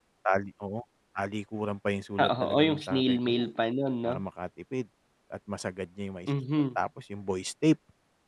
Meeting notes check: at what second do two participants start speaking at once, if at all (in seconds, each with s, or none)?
2.2 s